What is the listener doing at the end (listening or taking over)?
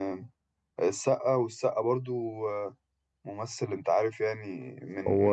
taking over